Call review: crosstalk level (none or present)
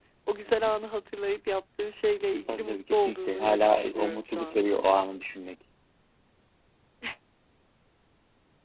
present